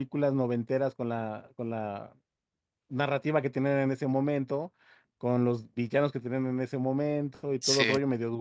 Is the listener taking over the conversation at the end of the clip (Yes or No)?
No